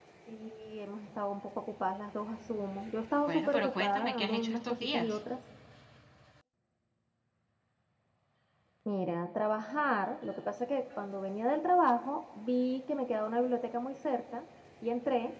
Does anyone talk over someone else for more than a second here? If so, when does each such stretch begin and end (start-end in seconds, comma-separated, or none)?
3.3-5.2